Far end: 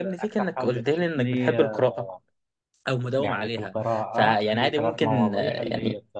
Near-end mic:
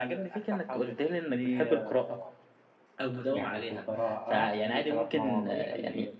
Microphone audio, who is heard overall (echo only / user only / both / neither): echo only